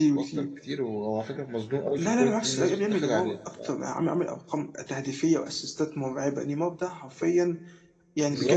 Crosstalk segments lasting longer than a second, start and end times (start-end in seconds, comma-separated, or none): 2.0-3.4